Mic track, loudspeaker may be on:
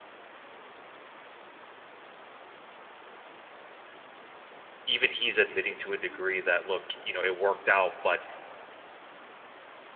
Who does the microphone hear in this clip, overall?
user only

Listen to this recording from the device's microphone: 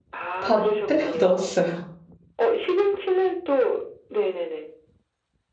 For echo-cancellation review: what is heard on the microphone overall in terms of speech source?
both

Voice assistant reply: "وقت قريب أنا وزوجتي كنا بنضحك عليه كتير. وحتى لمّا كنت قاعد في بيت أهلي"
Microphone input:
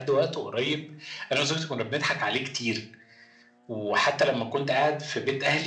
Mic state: echo only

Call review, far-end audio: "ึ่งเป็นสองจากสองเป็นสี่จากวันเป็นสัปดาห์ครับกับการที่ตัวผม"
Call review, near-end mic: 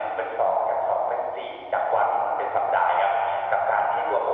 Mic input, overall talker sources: echo only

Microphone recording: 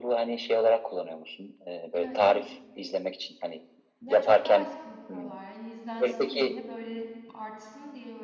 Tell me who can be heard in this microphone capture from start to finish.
both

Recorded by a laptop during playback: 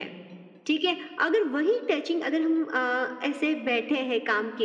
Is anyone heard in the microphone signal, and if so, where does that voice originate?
echo only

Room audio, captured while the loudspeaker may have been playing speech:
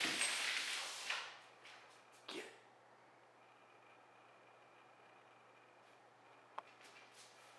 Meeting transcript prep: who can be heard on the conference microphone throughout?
neither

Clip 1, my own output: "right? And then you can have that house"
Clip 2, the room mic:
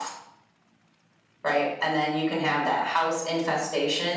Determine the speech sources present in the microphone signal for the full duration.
echo only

